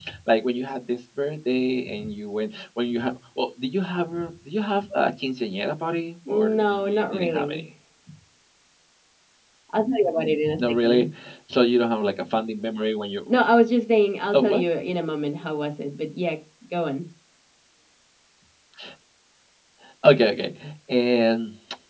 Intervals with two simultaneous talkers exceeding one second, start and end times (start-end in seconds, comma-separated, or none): 6.3-7.6